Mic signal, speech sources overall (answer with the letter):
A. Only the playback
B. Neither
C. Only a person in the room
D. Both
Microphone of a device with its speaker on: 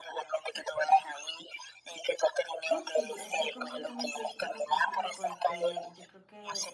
D